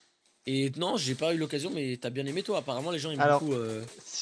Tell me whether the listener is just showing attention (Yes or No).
No